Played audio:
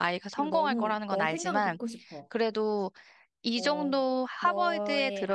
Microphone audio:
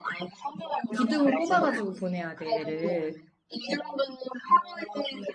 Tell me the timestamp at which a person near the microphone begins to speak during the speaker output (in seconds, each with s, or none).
0.9 s